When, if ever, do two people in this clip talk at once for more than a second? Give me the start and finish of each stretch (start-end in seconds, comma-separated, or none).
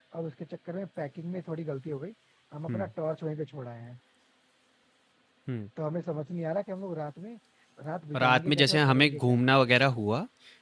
8.2-9.4